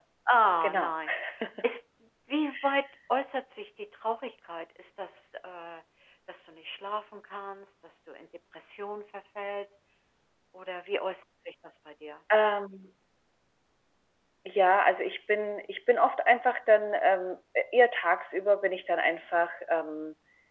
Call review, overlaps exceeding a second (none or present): none